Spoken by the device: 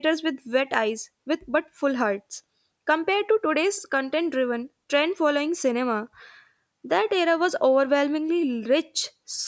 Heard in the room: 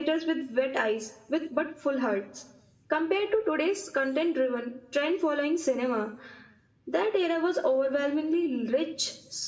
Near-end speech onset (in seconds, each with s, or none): none